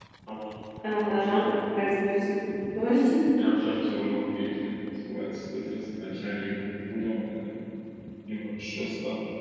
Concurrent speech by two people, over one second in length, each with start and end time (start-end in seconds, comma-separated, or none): none